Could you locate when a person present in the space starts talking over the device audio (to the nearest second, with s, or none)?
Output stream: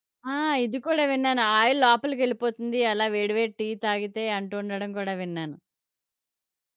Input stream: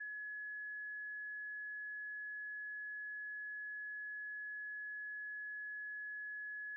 none